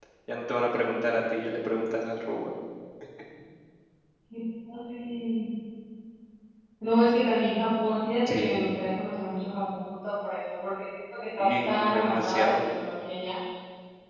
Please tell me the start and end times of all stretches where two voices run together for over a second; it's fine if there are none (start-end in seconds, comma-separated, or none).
11.4-12.6